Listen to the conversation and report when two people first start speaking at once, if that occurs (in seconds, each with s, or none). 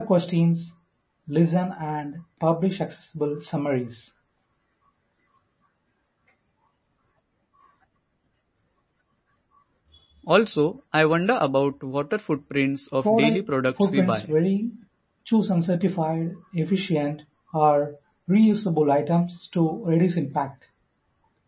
13.0 s